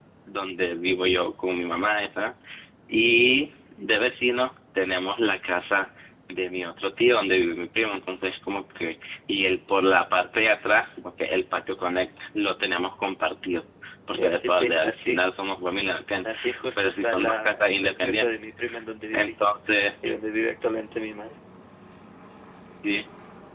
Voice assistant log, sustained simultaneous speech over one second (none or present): present